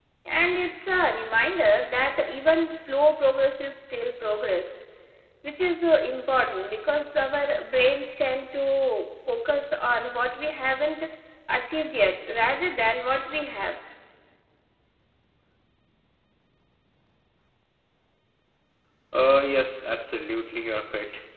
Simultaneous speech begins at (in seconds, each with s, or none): none